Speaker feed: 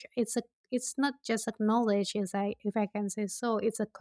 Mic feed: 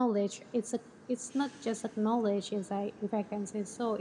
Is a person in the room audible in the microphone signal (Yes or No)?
No